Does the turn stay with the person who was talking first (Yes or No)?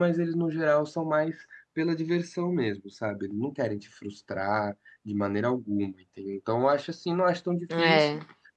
Yes